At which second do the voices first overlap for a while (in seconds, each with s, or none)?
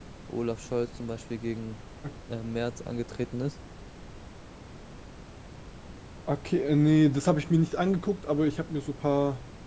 none